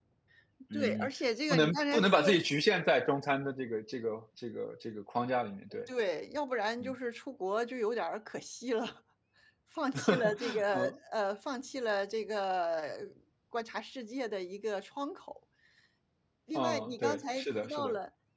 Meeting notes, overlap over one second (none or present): present